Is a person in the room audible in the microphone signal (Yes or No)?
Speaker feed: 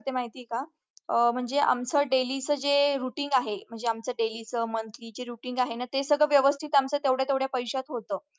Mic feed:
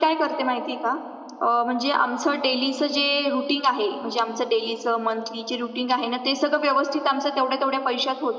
No